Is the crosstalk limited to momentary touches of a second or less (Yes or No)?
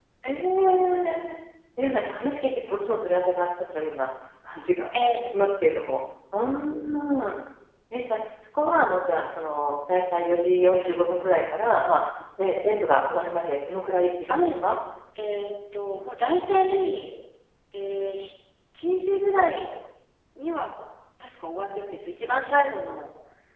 Yes